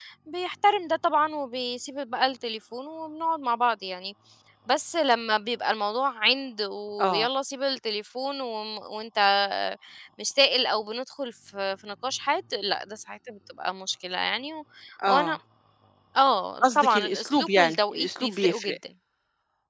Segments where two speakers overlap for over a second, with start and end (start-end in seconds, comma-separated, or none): 16.6-18.7